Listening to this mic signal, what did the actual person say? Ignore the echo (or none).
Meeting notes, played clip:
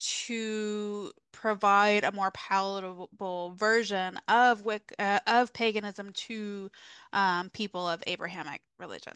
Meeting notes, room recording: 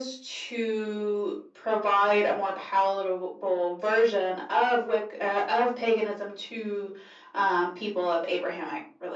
none